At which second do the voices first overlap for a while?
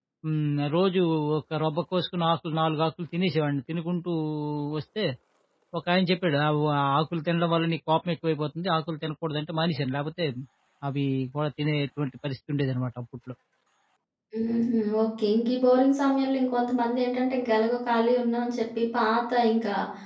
none

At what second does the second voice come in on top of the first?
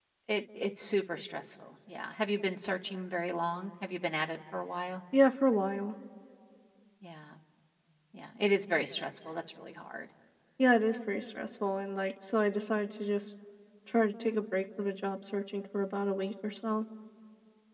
none

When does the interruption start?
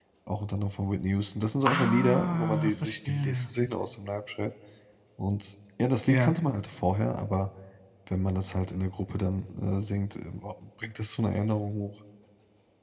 1.6 s

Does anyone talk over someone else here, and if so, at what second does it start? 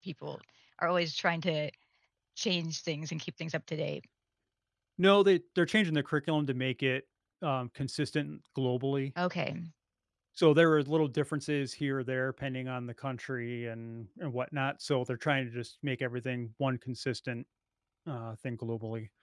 none

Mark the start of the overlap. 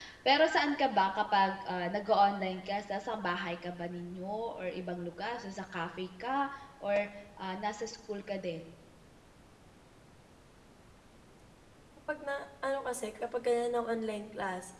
none

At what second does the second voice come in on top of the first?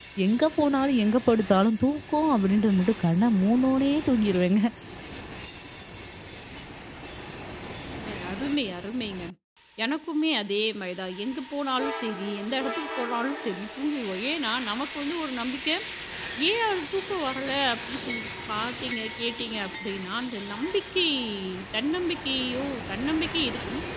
none

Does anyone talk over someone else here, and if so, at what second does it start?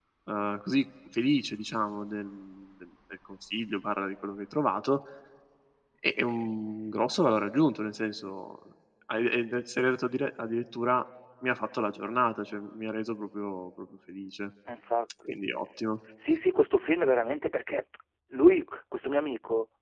none

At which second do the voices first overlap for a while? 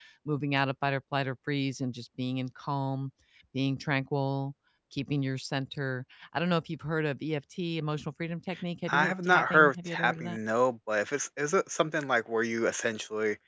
8.9 s

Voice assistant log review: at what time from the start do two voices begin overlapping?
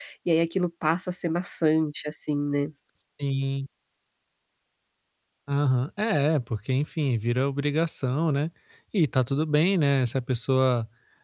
none

